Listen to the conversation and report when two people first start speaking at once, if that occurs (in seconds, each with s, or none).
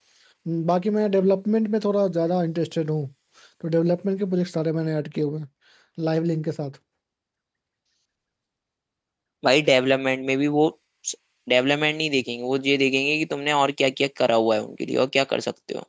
none